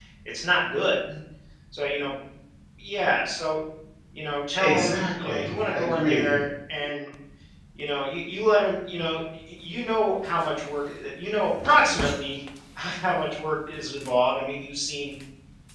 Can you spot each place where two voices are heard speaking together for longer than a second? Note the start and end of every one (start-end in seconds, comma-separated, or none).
4.6-6.4